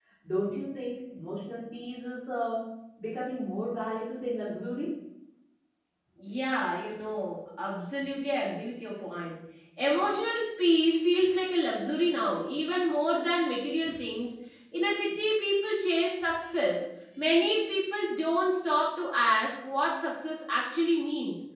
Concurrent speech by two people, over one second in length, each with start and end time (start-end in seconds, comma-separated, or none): none